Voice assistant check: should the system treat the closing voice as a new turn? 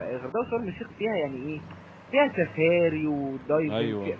No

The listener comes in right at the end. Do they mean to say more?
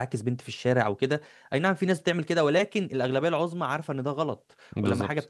No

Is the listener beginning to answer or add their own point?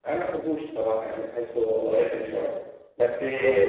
No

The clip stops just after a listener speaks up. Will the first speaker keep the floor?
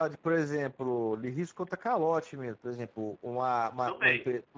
Yes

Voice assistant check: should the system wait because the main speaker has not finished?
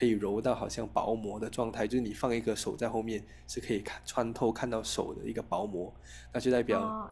No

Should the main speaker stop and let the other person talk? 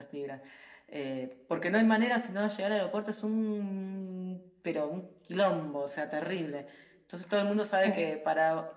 No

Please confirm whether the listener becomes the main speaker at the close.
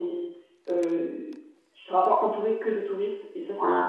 Yes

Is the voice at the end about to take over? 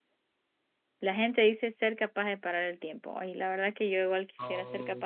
No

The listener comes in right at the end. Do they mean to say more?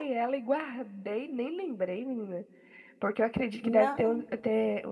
No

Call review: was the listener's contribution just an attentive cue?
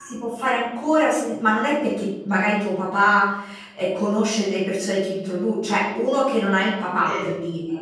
Yes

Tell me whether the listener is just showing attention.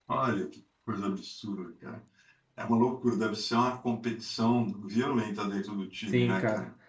No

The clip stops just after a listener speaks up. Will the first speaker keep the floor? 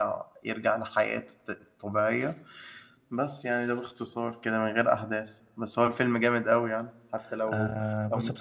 No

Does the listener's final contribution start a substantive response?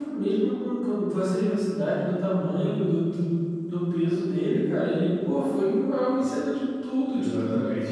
Yes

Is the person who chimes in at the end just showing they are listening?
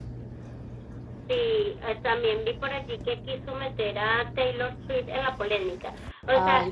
Yes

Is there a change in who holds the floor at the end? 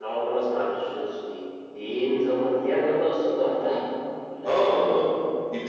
Yes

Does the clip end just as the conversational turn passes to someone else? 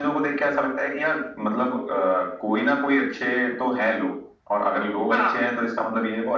No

